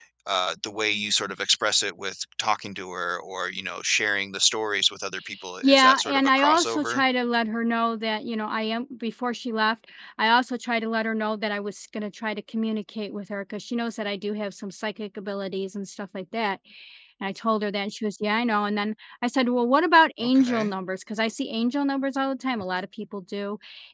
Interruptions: present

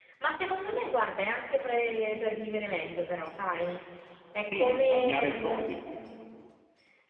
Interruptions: present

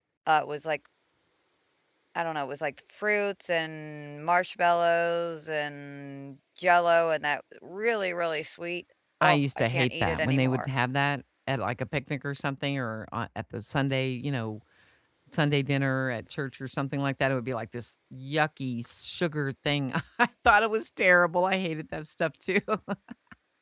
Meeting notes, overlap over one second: present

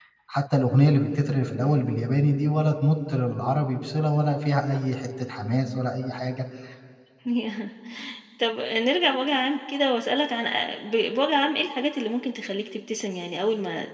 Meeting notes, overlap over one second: none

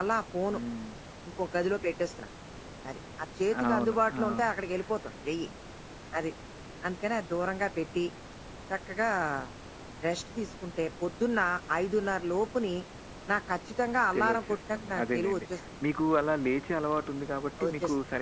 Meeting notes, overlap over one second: present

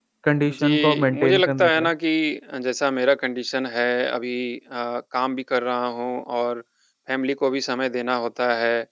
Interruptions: present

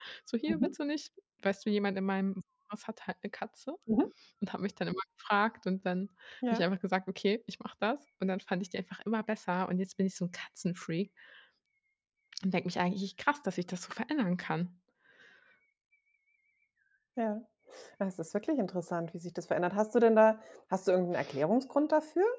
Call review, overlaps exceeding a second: none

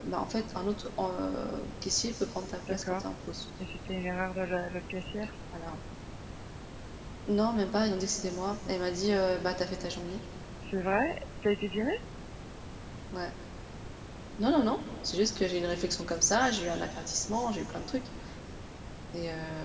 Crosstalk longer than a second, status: none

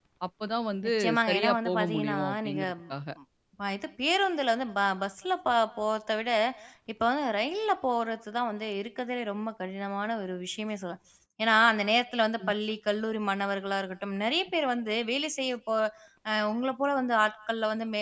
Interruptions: present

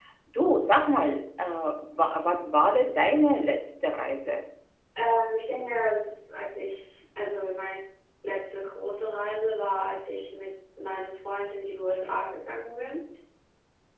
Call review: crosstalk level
none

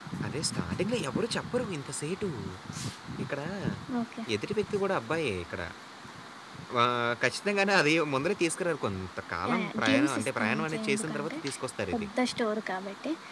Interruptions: present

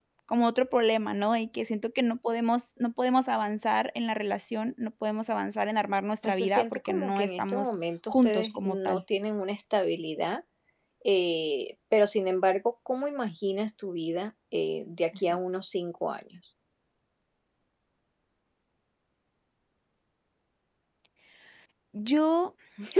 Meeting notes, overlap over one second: present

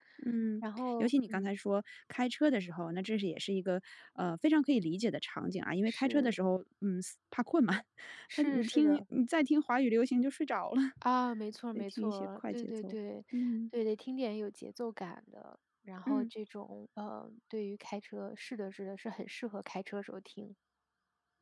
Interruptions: present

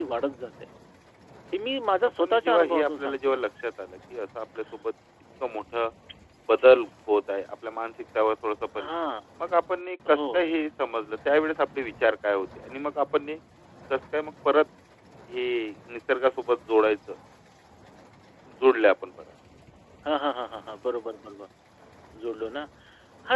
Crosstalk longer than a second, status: present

